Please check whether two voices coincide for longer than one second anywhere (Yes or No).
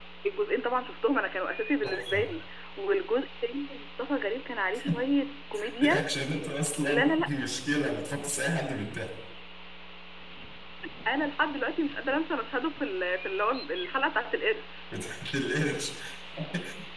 No